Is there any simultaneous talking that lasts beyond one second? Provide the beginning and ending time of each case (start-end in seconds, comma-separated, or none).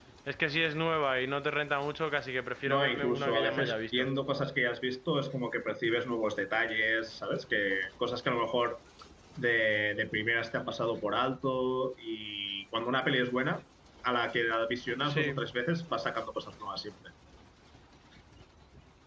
2.6-4.1